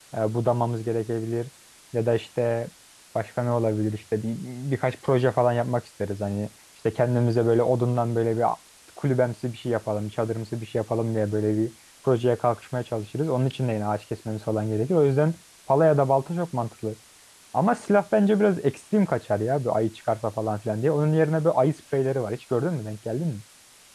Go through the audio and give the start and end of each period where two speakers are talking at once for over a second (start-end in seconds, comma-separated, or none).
none